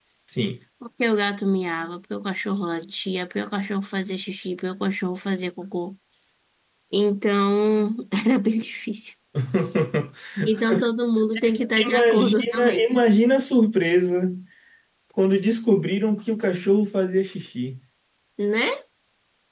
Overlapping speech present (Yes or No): Yes